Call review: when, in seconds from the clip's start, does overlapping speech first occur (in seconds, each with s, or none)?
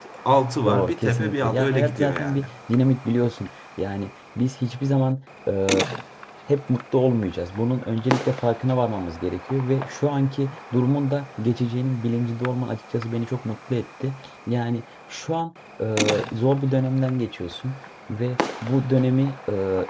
0.7 s